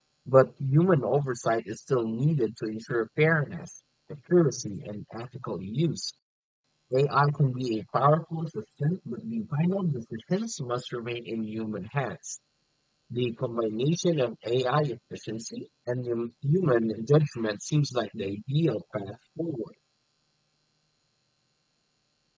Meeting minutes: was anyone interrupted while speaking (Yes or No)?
No